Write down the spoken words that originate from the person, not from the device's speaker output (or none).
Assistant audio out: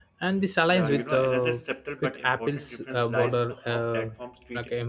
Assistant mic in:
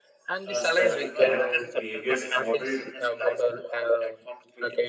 uh, specific app behaviors, enable